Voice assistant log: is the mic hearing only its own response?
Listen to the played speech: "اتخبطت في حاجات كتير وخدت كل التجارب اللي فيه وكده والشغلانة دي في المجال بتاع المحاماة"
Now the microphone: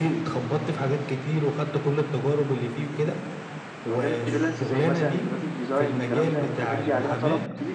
No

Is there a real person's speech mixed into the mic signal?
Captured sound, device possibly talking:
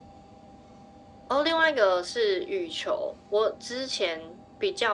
No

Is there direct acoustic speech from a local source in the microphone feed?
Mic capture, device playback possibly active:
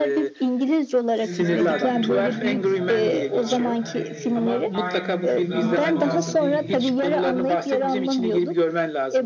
Yes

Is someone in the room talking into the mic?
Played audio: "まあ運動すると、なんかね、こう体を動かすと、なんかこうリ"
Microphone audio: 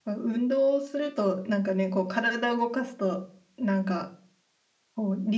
No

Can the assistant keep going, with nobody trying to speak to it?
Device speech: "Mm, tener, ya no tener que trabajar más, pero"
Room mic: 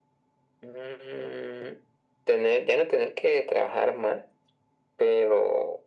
Yes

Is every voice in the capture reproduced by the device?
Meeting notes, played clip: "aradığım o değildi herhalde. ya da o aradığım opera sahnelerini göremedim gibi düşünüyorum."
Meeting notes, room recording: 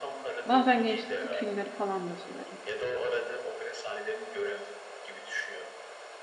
No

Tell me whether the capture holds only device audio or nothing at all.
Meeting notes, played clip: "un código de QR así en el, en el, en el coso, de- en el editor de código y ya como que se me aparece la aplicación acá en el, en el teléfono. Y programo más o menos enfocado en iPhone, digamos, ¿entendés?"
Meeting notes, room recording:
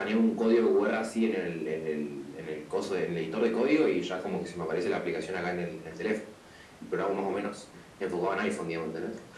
No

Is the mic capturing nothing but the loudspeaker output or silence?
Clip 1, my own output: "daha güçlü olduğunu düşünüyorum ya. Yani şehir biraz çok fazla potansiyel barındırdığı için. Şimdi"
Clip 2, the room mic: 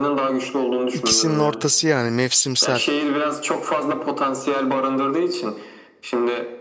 No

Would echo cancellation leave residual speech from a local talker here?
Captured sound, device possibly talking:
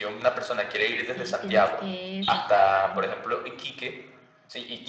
Yes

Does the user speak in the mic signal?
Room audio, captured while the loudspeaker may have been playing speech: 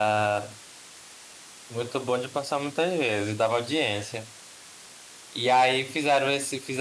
Yes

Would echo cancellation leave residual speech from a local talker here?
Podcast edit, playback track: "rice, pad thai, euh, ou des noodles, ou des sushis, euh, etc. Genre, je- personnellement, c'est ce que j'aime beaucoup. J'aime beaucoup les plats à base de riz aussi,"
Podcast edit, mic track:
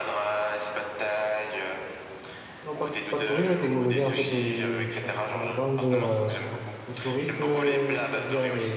Yes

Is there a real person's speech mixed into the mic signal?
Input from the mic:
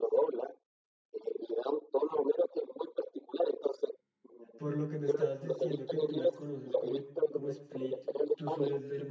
Yes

